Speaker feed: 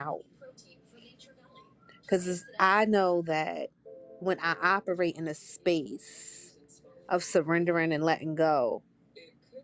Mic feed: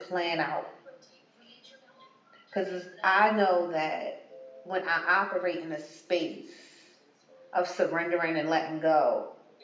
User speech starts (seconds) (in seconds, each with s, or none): none